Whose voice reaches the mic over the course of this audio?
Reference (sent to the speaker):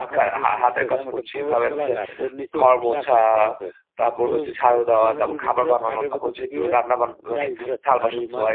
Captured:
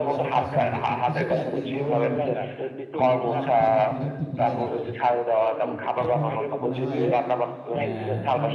both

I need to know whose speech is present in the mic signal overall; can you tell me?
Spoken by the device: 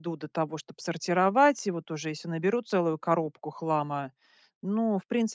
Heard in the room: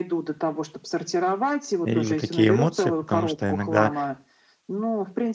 both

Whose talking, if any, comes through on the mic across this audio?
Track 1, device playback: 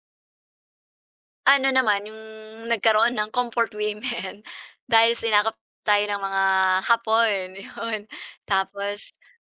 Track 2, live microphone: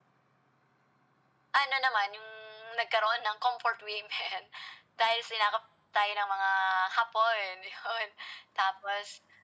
echo only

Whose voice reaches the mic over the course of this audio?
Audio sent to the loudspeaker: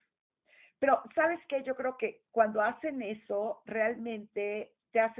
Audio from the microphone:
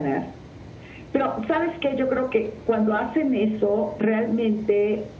echo only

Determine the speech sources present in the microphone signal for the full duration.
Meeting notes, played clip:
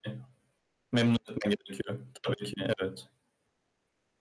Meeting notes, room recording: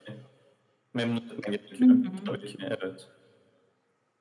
both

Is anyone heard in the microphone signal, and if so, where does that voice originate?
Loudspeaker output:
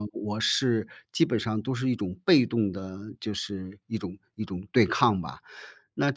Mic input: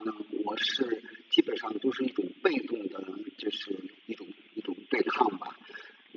echo only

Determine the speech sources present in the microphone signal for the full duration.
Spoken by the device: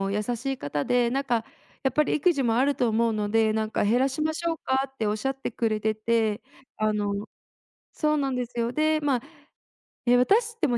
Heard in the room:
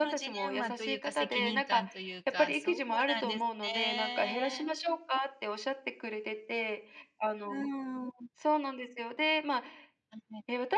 both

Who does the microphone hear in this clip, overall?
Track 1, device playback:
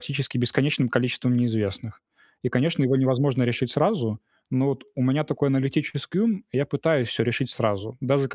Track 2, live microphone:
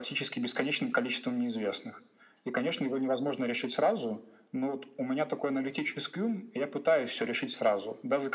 echo only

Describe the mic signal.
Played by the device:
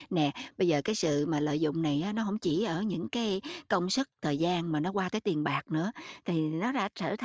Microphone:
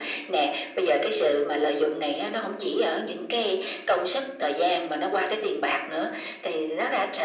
echo only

